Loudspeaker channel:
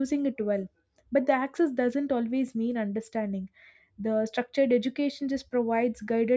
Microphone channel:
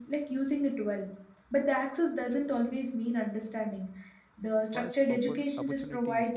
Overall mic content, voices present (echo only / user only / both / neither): both